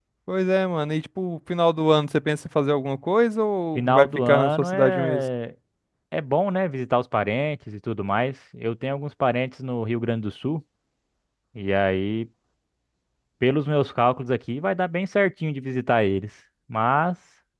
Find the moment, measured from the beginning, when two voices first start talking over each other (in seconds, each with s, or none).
3.8 s